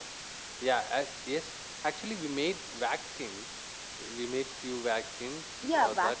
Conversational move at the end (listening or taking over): taking over